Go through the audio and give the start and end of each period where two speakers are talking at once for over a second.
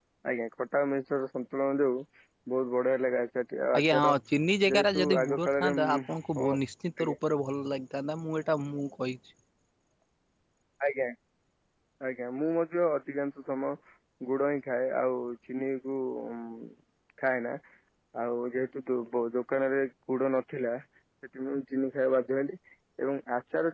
4.7-6.0

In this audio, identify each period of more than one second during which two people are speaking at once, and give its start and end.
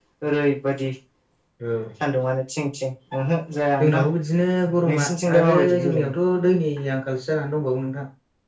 4.9-6.1

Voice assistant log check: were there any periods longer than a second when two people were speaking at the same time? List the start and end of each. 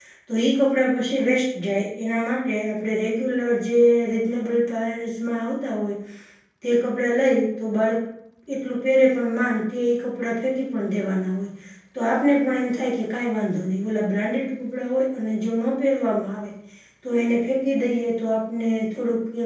none

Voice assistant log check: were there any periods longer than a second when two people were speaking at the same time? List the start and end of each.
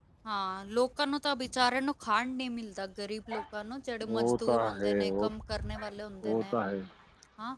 4.1-5.3

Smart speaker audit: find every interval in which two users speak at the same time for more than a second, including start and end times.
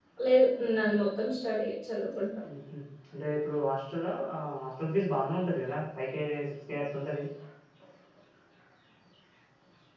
none

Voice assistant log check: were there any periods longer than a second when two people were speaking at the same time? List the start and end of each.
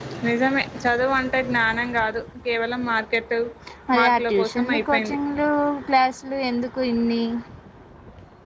4.0-5.2

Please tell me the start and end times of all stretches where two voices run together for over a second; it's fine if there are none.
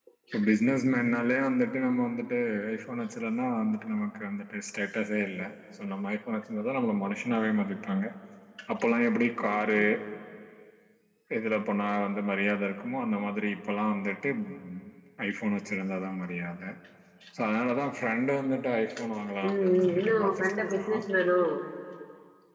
19.5-20.8

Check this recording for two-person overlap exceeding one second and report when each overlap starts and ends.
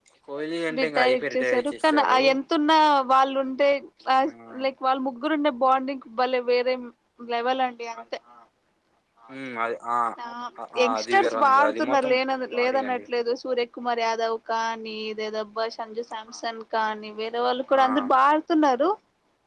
1.0-2.2, 10.8-12.1

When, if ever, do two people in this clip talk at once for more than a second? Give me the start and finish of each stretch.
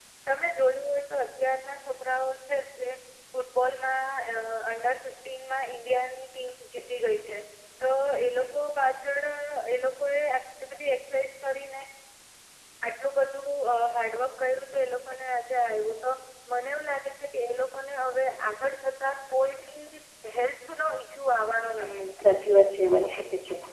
none

